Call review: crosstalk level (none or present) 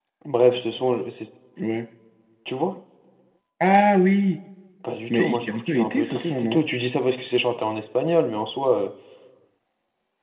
present